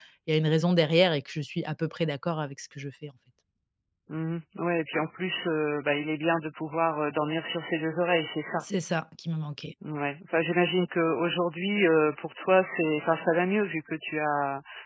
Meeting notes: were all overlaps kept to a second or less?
Yes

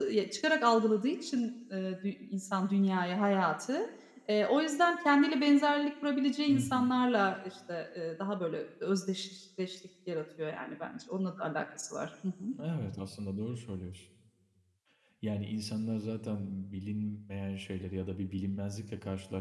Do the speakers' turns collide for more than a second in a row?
No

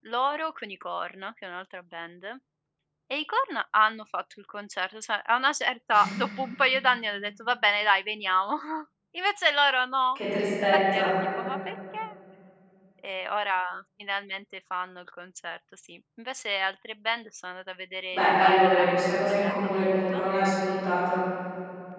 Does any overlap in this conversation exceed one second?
Yes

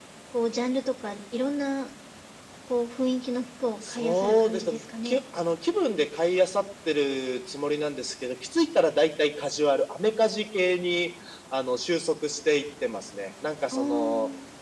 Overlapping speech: Yes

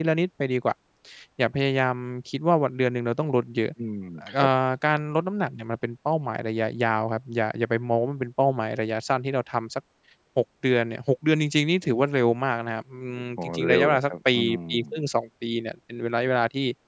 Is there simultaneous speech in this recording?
Yes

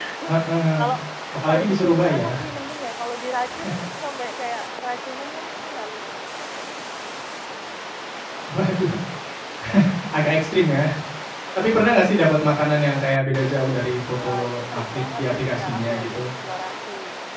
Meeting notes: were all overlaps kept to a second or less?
No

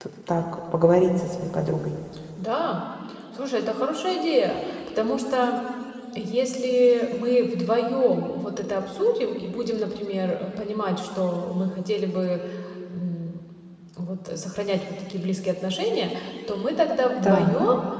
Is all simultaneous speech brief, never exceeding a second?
Yes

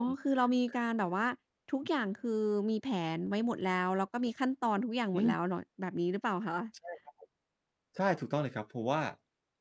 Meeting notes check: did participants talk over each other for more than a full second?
No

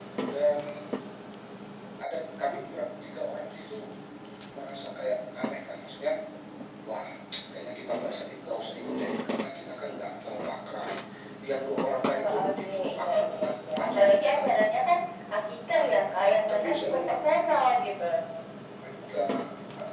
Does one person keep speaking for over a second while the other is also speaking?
Yes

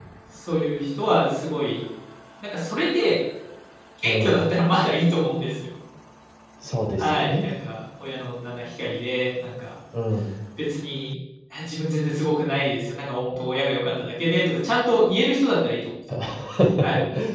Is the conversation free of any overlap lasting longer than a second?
Yes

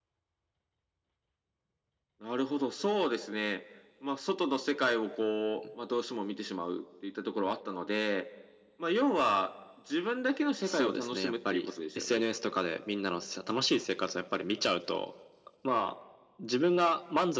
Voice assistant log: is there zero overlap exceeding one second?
No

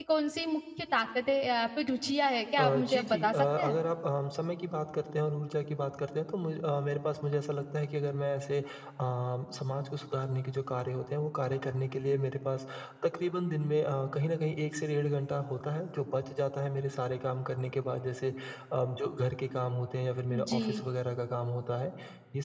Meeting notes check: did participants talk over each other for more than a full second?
Yes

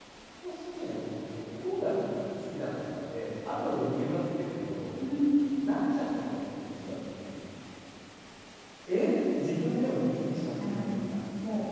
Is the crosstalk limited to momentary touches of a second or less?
Yes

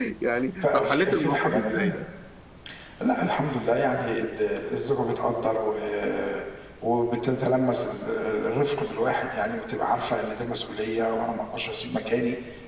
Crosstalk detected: Yes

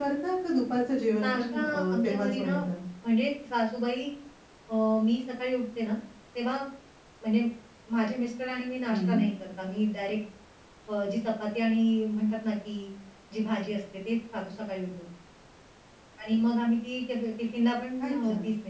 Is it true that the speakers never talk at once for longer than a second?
No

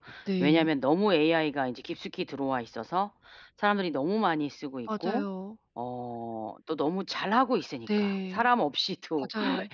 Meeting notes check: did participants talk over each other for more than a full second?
No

